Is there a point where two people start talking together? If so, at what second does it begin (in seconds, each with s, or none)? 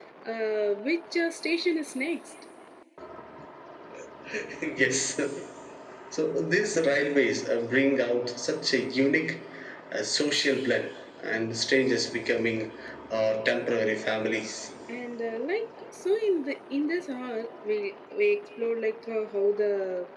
none